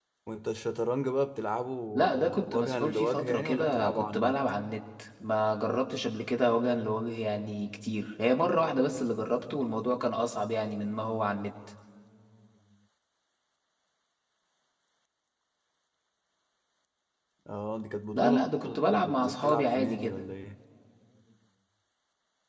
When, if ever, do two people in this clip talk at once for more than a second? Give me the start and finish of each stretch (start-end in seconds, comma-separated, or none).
2.1-4.4, 18.1-20.2